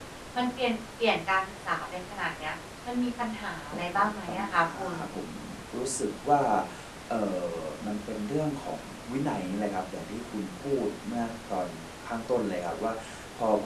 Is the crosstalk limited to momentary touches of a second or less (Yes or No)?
No